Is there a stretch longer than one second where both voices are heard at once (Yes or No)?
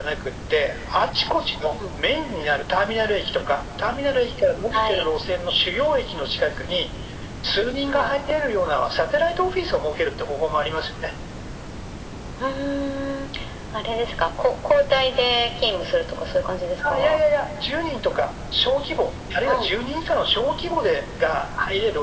No